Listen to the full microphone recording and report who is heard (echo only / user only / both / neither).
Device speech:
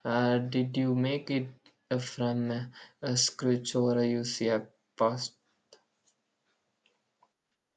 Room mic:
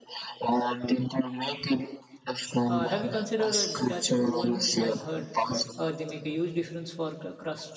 both